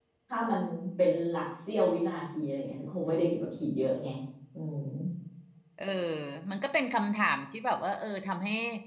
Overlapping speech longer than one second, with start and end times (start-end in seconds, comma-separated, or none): none